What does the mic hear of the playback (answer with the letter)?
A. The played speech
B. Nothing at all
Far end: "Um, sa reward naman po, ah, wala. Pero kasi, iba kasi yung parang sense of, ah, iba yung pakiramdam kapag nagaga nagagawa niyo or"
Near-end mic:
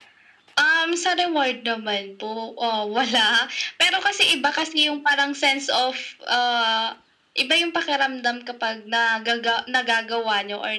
A